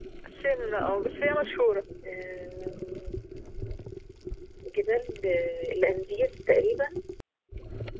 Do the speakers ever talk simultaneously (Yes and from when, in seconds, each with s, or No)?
No